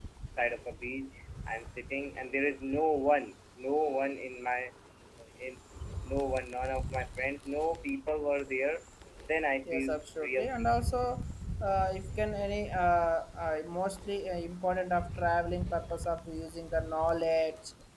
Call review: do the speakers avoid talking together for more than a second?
No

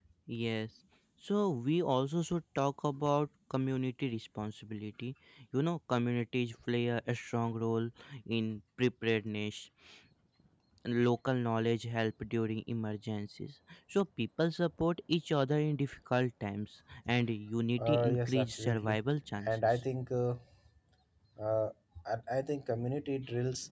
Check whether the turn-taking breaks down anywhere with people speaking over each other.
Yes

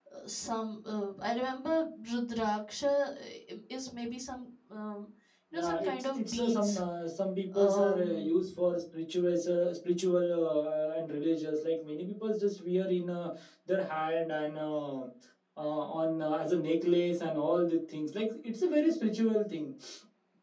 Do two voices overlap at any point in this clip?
Yes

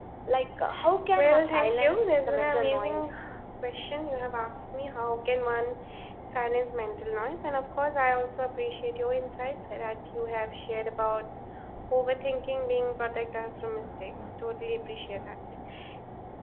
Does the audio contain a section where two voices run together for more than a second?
Yes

